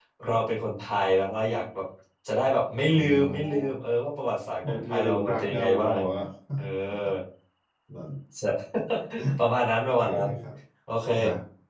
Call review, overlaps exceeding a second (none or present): present